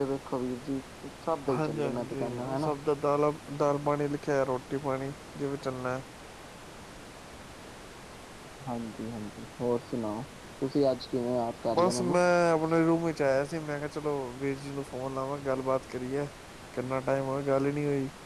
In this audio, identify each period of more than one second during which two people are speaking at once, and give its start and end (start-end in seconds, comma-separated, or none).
1.5-2.7